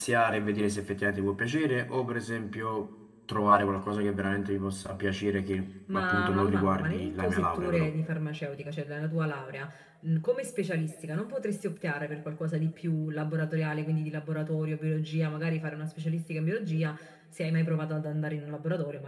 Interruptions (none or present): present